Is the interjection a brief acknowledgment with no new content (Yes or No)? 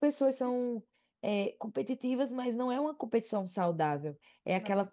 Yes